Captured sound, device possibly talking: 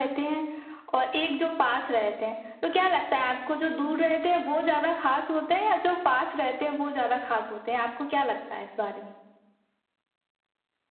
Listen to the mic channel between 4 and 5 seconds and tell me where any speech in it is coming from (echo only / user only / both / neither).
echo only